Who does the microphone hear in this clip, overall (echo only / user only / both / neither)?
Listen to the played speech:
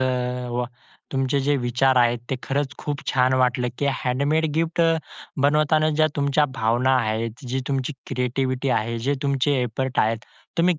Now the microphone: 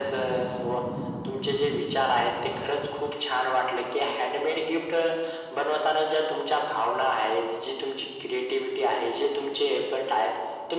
echo only